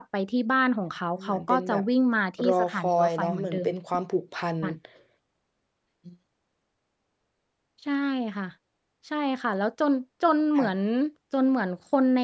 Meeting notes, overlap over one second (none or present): present